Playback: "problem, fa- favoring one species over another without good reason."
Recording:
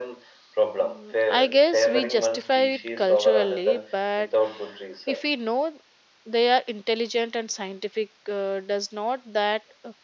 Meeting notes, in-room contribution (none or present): present